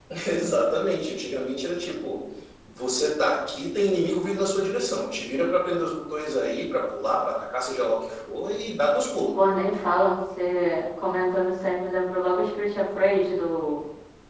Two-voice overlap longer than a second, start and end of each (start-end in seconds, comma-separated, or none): none